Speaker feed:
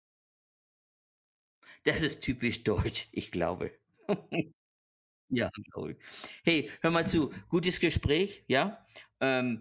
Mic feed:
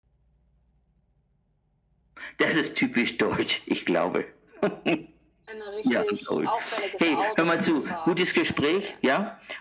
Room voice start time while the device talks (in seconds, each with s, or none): 5.5 s